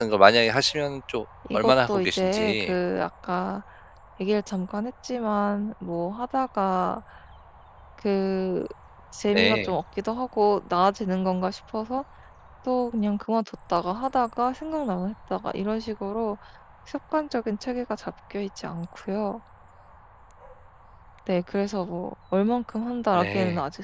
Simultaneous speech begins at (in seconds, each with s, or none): 1.5 s